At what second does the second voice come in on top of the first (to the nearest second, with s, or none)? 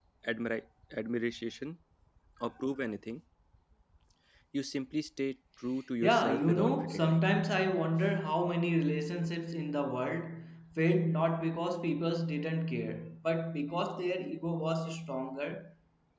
6 s